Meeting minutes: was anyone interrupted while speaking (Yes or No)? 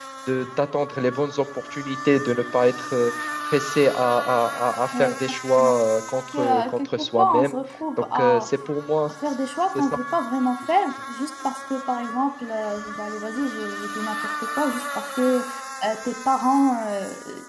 Yes